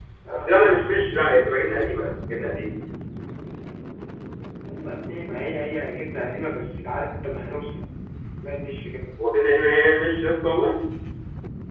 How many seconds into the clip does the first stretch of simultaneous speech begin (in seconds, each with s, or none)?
none